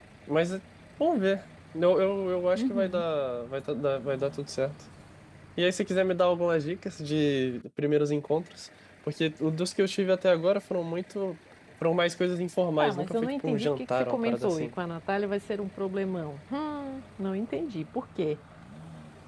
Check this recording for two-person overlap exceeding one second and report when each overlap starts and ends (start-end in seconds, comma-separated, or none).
12.8-14.7